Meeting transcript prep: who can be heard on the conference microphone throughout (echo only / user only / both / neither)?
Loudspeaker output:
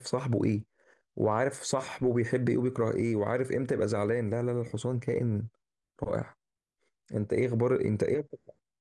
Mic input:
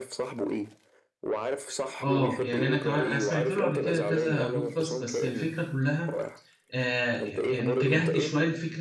both